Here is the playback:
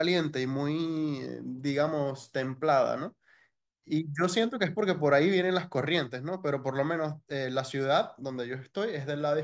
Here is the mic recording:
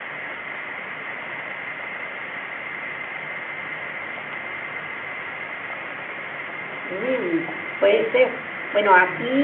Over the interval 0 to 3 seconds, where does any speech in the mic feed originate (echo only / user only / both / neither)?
neither